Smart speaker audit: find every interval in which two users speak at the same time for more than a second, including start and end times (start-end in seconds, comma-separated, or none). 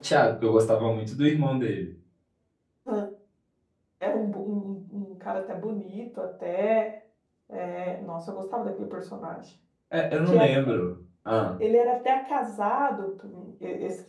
none